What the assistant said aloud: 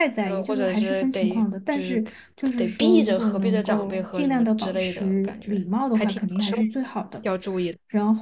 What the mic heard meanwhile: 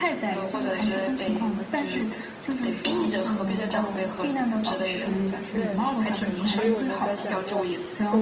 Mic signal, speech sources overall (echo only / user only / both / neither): both